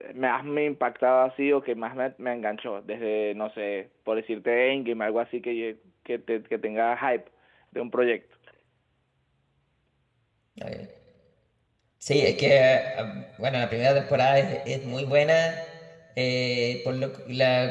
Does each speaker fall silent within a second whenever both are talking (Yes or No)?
Yes